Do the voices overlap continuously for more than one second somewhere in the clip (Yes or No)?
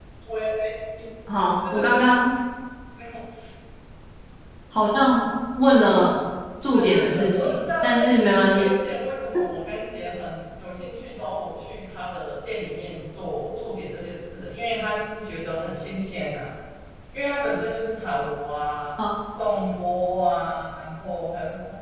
Yes